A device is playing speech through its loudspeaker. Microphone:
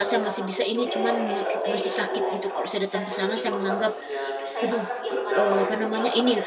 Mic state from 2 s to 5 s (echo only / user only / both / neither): both